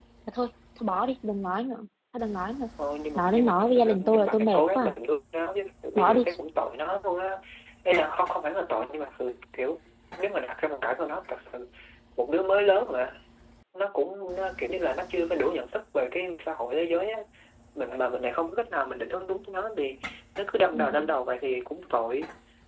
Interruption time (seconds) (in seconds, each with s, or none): 3.1 s